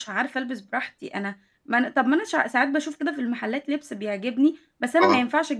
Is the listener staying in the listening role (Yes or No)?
Yes